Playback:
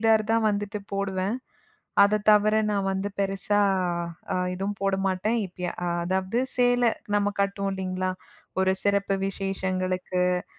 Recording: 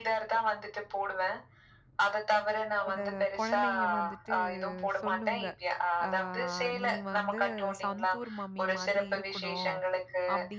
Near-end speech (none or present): present